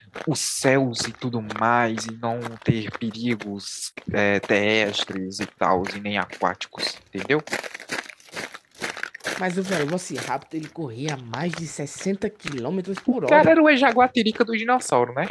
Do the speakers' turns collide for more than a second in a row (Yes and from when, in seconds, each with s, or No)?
No